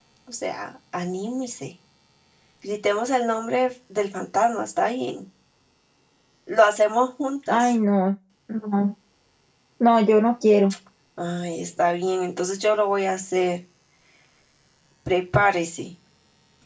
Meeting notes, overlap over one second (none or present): none